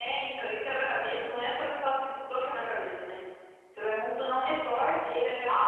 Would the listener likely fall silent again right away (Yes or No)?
No